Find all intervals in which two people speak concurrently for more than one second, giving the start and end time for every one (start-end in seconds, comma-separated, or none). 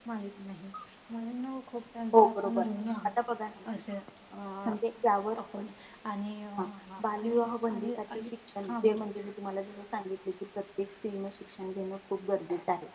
7.0-8.3